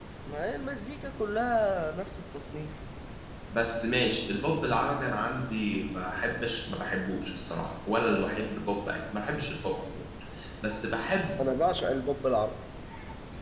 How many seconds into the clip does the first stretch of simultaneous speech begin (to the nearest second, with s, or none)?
none